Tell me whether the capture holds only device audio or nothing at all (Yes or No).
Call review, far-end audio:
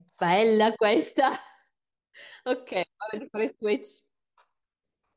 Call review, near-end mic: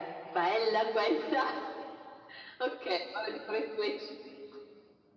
Yes